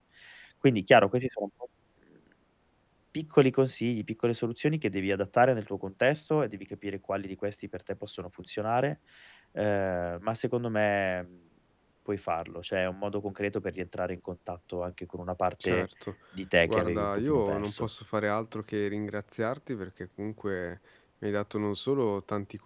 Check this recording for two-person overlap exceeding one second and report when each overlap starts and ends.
16.7-17.9

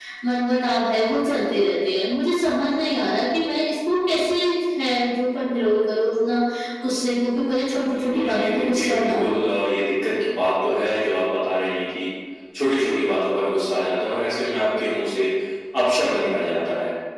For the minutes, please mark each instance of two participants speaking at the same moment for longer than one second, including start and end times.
7.9-9.4

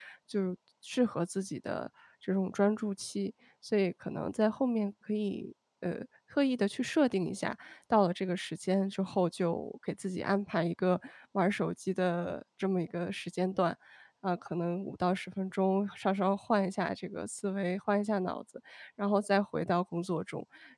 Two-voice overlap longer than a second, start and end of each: none

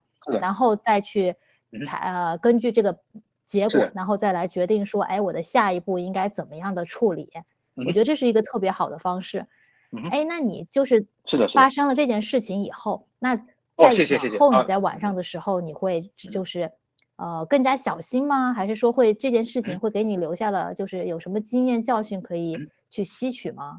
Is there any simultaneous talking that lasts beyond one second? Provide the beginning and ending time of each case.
13.8-15.1

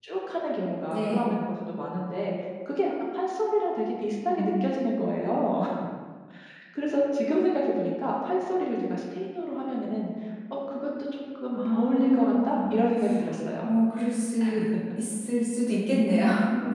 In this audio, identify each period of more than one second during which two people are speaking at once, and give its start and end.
11.6-12.8

